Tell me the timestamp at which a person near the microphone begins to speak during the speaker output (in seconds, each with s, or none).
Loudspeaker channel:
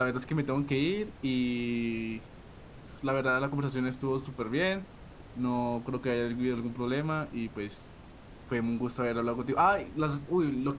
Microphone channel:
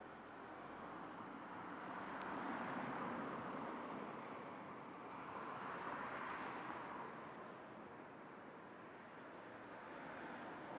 none